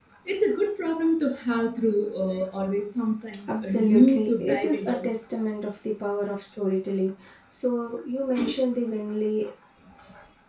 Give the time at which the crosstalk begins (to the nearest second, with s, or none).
3 s